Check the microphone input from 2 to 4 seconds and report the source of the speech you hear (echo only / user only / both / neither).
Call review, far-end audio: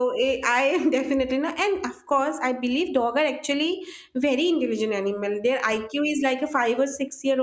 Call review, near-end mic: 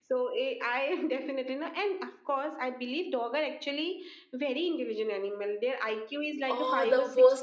echo only